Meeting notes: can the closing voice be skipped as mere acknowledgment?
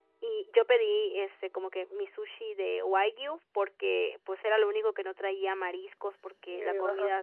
Yes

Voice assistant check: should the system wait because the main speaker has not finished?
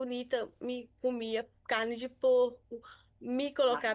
Yes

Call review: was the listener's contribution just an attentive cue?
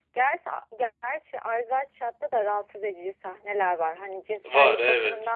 Yes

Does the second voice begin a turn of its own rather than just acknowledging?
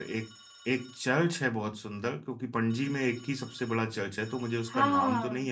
Yes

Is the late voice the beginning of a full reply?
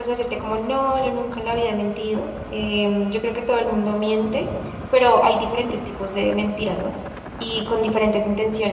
No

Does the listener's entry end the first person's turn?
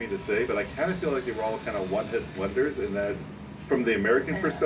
No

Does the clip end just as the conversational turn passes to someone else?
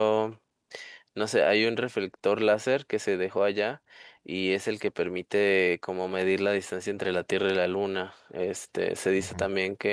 No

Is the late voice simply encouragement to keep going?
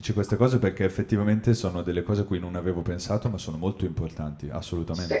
No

